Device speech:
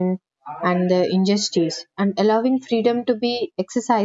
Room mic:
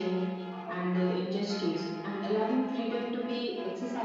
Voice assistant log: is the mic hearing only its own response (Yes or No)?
Yes